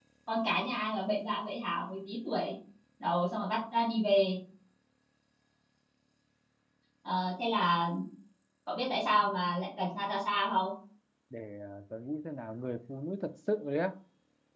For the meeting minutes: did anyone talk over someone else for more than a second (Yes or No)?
No